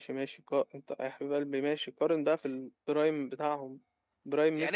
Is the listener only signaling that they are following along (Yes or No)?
No